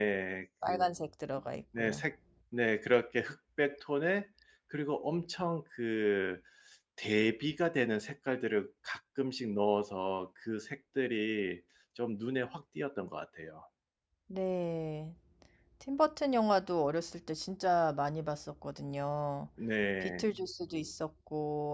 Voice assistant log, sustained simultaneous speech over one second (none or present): none